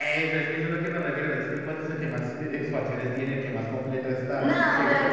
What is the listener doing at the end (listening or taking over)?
taking over